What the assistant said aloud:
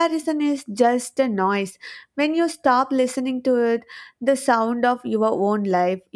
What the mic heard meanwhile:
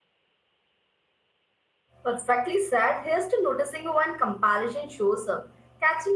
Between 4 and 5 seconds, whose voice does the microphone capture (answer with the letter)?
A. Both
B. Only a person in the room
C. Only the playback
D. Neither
B